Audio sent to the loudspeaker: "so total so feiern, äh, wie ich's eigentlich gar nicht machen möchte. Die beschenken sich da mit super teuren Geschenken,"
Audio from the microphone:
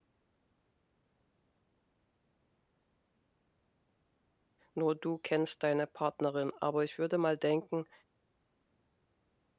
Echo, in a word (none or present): none